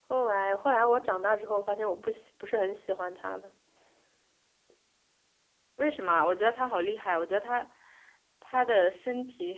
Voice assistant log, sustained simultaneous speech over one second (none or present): none